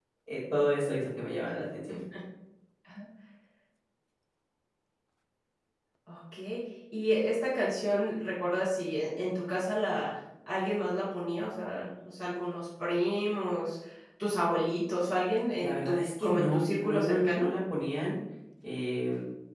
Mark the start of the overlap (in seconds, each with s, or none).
15.6 s